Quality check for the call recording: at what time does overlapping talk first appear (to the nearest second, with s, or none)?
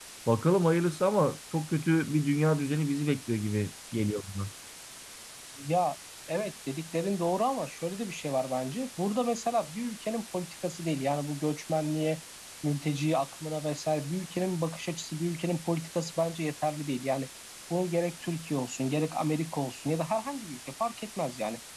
none